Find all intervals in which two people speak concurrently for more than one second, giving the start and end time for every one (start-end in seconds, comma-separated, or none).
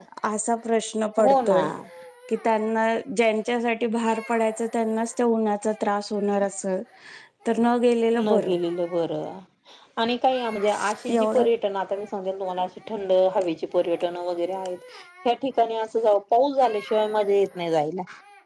none